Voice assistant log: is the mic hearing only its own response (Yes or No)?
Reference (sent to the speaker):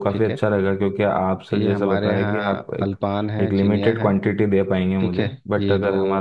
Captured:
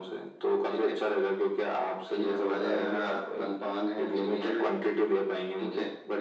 Yes